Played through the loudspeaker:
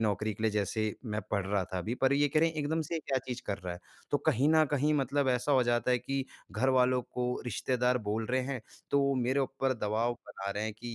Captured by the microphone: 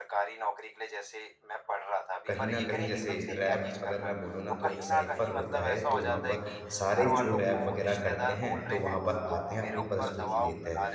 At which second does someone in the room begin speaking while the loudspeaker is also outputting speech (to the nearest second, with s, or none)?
2 s